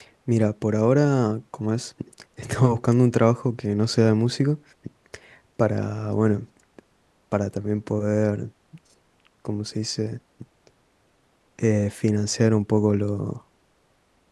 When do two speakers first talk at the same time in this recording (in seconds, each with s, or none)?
none